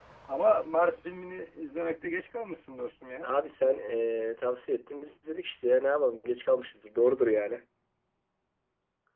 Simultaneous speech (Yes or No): No